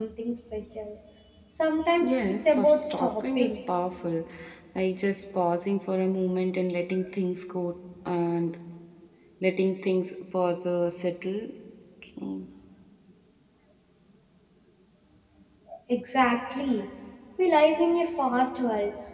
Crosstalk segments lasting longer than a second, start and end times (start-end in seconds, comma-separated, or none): 2.0-3.6